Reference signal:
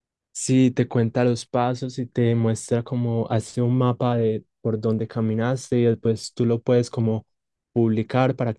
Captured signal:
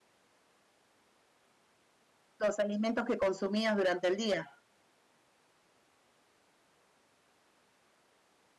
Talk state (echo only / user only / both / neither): user only